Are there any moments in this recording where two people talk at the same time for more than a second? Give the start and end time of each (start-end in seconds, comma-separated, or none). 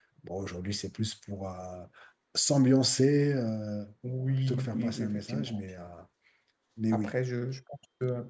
4.4-5.6